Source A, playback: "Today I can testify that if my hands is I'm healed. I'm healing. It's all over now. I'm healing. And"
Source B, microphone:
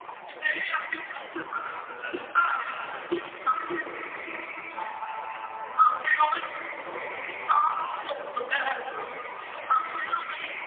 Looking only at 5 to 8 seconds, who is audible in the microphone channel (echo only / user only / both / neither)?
echo only